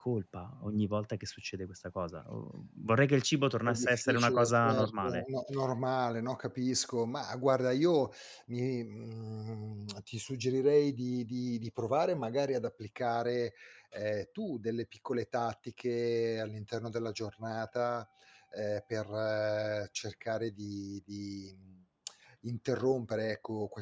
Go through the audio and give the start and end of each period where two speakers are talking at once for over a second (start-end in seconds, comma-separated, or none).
3.7-5.2